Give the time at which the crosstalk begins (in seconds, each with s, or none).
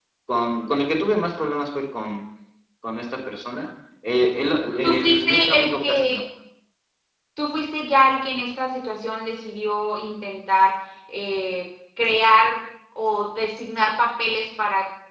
4.8 s